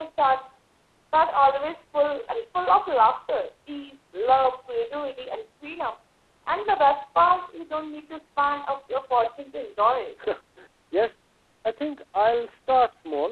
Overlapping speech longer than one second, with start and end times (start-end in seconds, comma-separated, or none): none